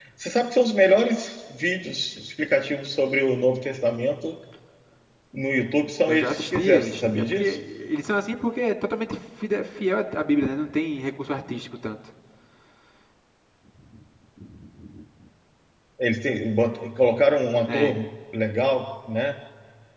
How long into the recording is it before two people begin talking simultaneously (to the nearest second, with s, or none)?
6 s